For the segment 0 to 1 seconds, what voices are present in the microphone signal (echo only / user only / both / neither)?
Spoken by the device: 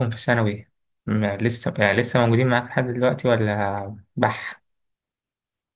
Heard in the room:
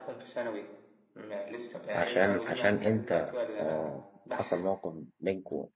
echo only